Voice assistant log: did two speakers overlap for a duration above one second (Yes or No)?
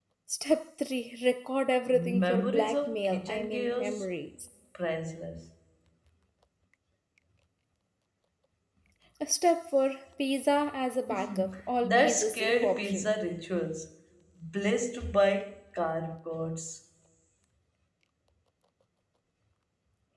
Yes